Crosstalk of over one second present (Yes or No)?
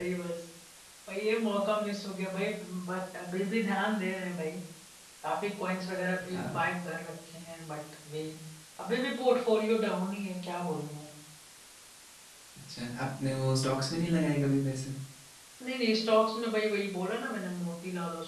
No